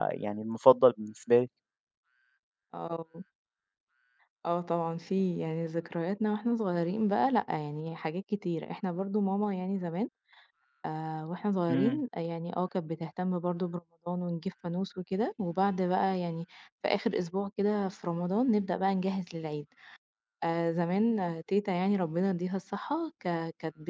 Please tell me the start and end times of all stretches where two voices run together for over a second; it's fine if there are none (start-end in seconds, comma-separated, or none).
none